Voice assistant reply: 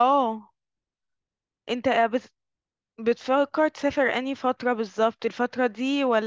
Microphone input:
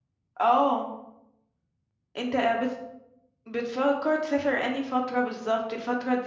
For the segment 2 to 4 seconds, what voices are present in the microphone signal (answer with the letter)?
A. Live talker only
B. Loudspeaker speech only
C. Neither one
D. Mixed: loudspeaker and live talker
B